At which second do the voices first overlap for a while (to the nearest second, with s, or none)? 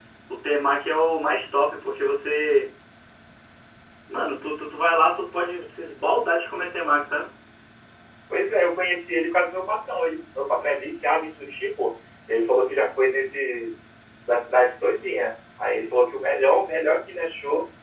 none